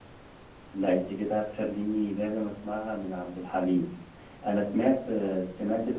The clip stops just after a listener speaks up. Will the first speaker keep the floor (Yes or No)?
Yes